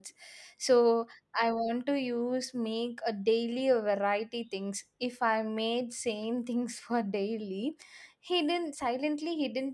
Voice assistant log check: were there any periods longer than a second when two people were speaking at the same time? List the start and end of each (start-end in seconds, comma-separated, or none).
none